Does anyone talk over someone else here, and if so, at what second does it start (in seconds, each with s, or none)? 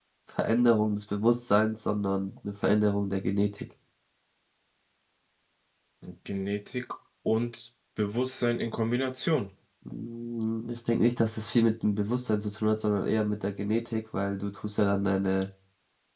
none